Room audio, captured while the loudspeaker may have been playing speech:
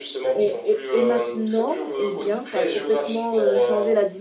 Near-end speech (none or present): present